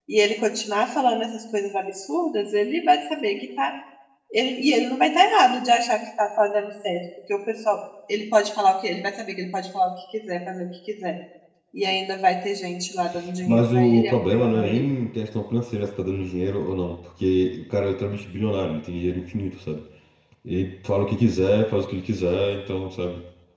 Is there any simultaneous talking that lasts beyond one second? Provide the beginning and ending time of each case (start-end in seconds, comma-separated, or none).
13.5-14.9